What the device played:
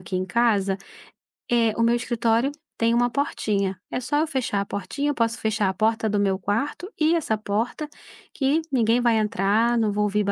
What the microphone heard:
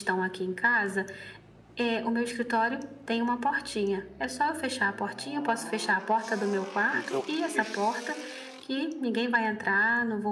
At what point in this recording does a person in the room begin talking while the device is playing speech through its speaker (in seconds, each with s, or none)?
6.9 s